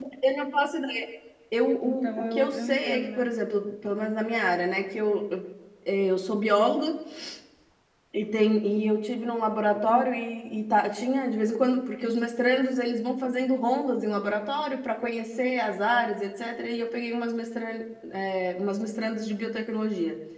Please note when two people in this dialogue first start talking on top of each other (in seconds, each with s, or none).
1.8 s